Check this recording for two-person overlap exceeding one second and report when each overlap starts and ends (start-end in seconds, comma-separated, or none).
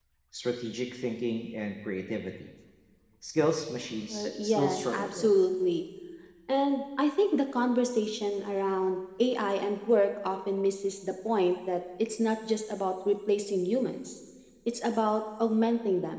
4.1-5.3